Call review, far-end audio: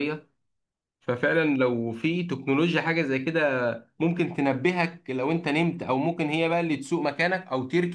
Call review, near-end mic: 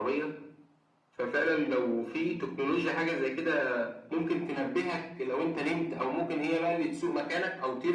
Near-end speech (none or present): none